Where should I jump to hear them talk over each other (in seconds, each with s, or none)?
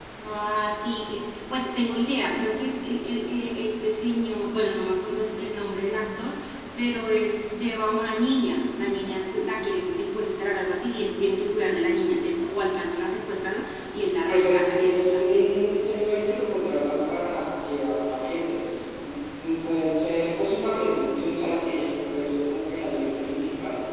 14.3 s